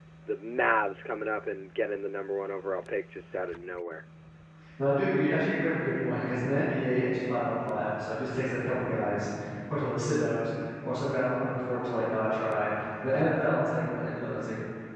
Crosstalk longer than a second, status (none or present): none